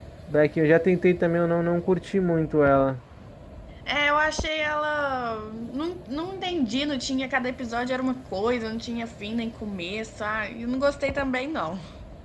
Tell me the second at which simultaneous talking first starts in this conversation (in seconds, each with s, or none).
none